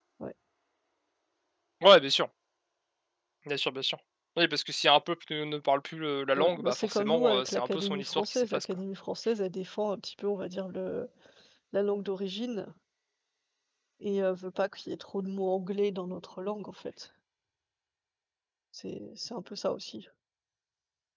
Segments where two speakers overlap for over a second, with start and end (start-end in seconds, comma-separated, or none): 6.4-8.7